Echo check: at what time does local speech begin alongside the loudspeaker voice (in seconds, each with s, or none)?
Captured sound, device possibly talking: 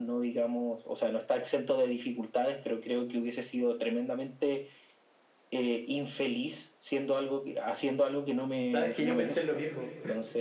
8.7 s